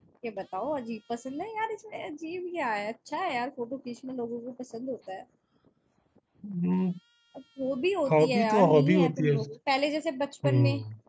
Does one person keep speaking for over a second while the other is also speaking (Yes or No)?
Yes